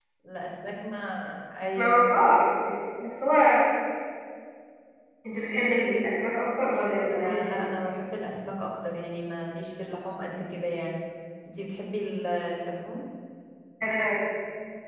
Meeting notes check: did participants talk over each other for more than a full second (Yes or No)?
No